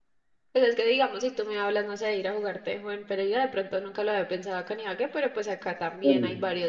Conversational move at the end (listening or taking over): listening